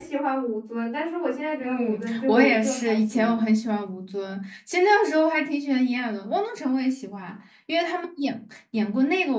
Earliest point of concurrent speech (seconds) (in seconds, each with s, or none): 1.6 s